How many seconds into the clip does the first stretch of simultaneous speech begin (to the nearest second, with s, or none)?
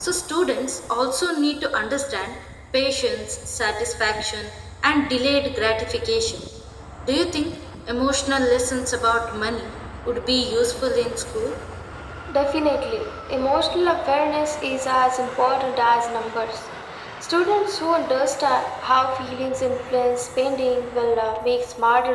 none